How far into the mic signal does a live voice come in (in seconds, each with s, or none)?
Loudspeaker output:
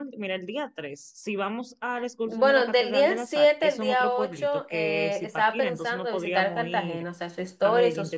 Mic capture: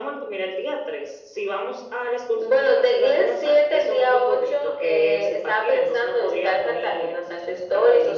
none